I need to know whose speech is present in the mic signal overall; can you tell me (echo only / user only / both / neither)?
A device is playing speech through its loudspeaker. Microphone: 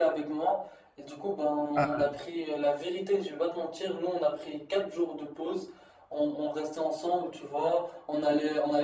both